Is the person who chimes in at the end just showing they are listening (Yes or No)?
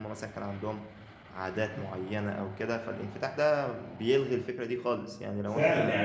No